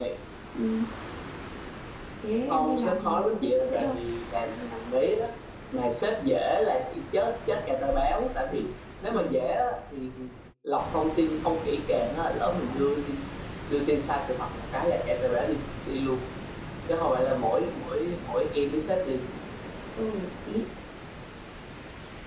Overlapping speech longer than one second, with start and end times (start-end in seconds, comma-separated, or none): 2.5-4.0